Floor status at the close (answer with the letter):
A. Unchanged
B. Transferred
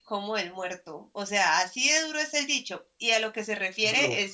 A